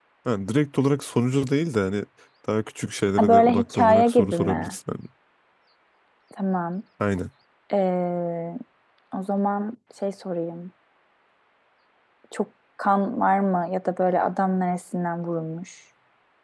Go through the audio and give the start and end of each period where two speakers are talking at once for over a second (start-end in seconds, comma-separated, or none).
3.2-4.8